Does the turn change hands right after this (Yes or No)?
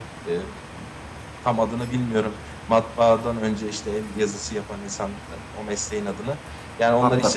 No